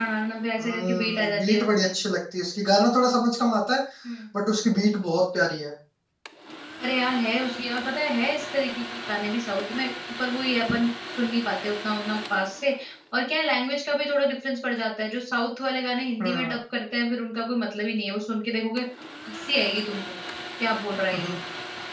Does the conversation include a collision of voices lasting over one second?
Yes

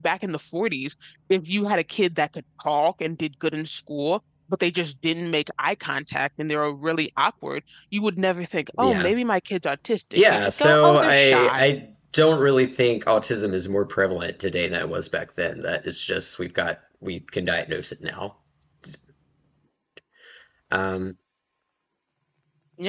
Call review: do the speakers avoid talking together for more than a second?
No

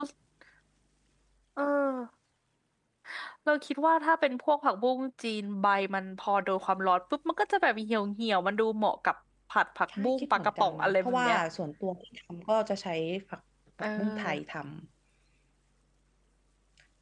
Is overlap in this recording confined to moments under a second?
No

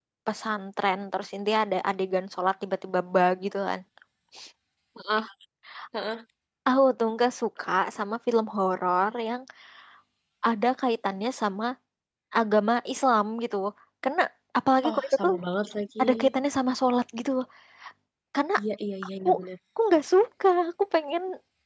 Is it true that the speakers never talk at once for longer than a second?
Yes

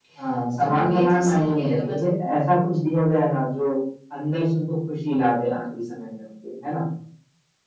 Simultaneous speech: Yes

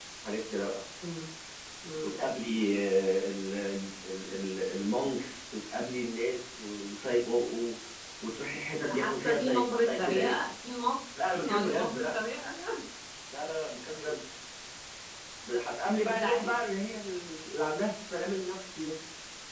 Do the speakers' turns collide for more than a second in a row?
Yes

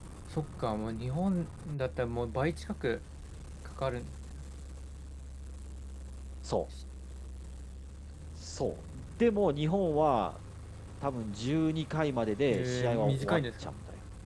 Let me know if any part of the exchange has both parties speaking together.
Yes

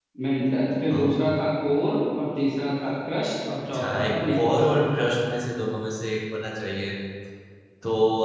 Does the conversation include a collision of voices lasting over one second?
Yes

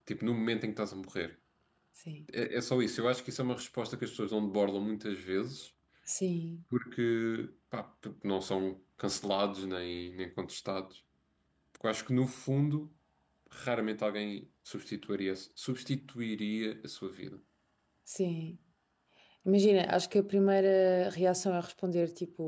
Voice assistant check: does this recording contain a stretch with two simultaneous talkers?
No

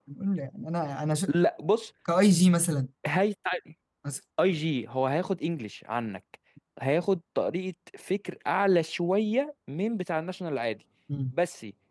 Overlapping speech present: No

